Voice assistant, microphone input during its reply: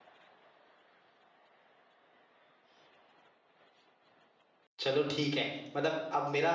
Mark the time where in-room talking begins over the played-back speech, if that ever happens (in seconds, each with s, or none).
4.8 s